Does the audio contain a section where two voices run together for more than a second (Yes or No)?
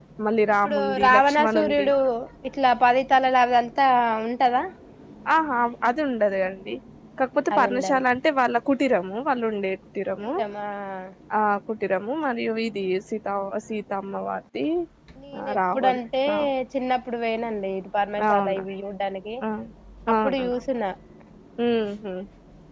Yes